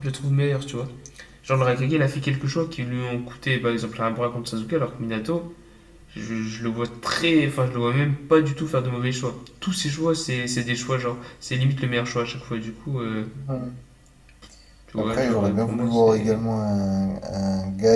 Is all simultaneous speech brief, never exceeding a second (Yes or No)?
No